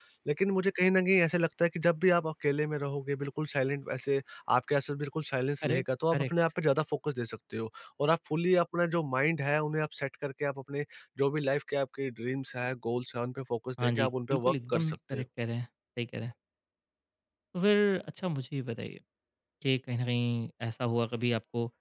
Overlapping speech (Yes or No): Yes